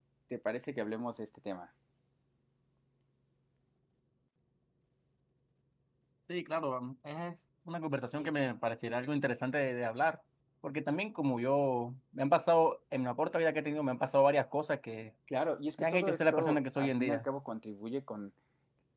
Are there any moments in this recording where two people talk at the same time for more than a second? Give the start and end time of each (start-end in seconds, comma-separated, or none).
15.8-17.2